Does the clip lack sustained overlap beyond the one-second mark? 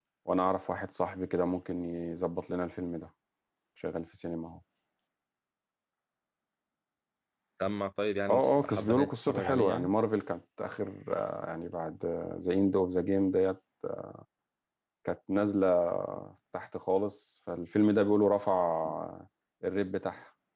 No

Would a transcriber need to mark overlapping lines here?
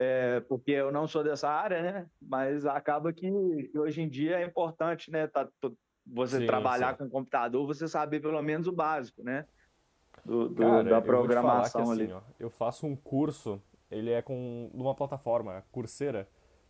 Yes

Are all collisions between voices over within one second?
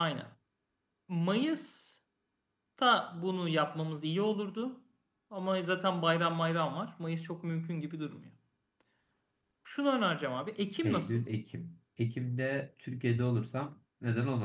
Yes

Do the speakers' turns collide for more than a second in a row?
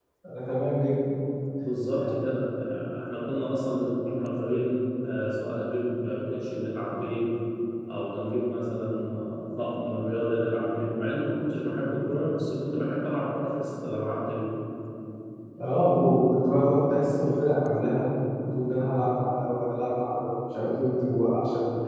No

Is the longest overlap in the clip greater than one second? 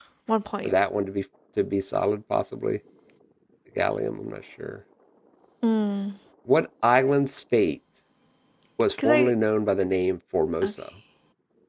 No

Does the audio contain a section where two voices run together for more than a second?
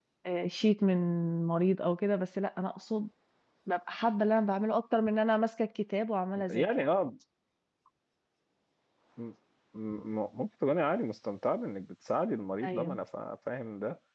No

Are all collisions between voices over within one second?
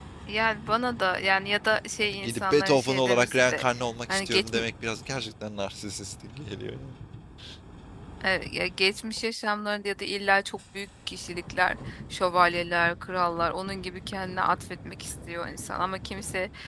No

